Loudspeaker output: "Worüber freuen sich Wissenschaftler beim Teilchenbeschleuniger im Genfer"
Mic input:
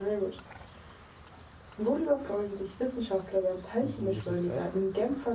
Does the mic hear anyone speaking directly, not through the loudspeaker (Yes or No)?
Yes